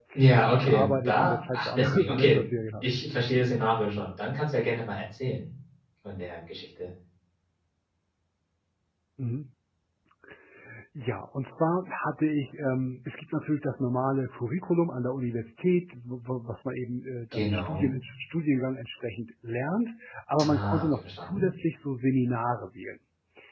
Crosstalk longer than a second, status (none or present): present